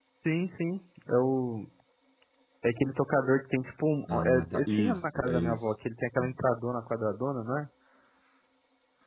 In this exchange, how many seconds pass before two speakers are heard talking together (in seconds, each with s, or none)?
4.1 s